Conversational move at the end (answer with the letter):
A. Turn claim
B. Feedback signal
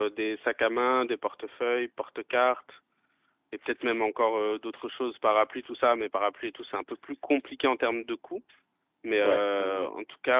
B